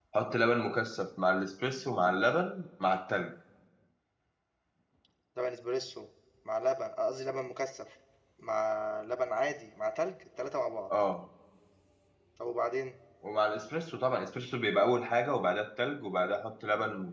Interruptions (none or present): none